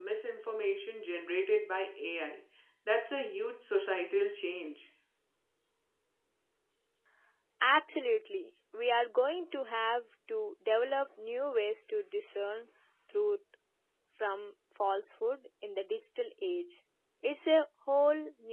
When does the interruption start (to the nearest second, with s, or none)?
none